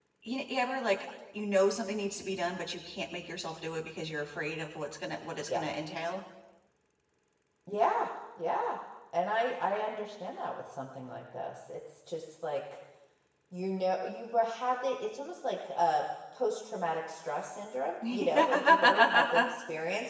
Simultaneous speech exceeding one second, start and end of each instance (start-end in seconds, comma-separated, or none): 18.1-19.5